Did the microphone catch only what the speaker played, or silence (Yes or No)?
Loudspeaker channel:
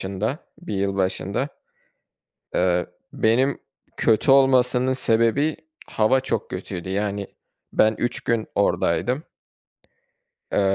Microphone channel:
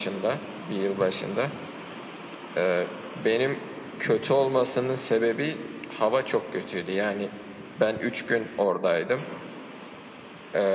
Yes